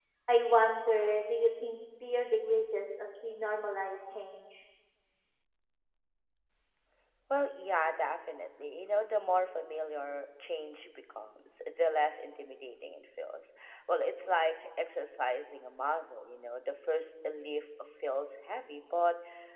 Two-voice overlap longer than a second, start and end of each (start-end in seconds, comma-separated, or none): none